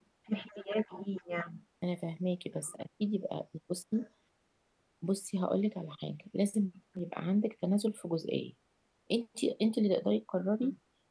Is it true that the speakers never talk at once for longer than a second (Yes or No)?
Yes